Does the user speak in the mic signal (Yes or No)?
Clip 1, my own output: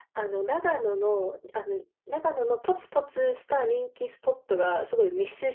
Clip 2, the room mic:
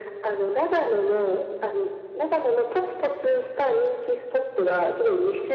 No